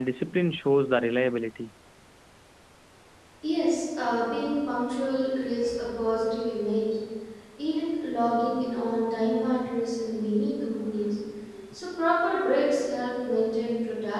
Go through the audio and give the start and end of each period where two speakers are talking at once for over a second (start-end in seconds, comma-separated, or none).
none